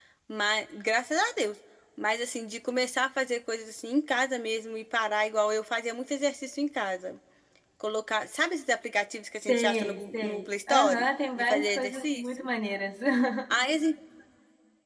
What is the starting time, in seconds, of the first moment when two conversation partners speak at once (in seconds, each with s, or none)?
9.5 s